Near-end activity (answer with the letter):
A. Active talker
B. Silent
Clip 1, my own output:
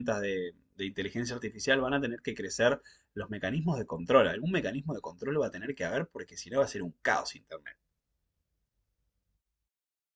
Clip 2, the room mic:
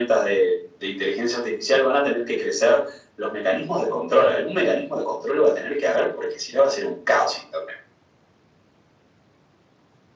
B